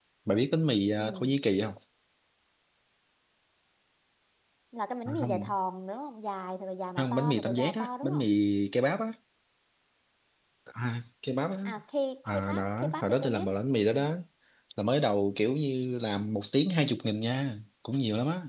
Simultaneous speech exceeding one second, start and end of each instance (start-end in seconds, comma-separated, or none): 7.0-8.2, 12.3-13.5